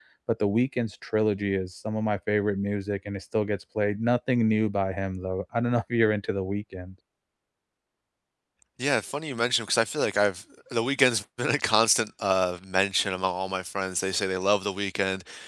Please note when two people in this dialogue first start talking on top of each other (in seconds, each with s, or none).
none